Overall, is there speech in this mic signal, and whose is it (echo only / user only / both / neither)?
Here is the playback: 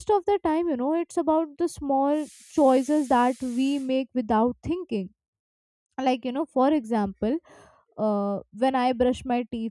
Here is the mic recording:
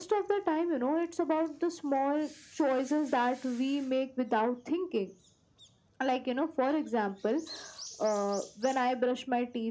echo only